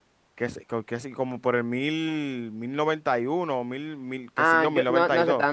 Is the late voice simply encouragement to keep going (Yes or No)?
No